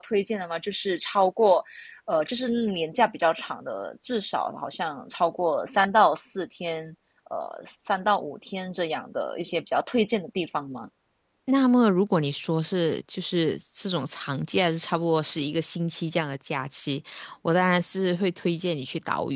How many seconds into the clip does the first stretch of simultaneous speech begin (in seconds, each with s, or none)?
none